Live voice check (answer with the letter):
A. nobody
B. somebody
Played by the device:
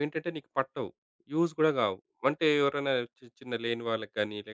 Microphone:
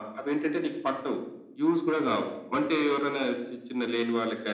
A